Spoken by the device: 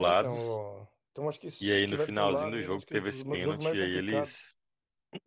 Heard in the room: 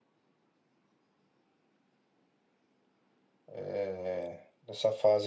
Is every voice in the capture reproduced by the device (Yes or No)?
No